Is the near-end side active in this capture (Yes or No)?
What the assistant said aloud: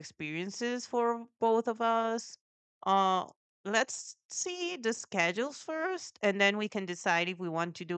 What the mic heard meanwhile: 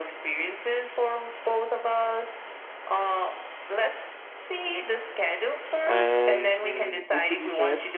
Yes